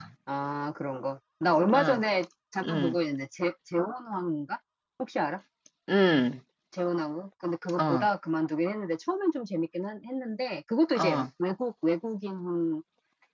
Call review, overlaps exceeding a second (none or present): none